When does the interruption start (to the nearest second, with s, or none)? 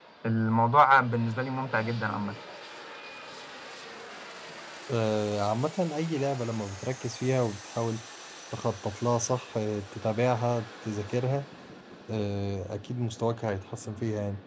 none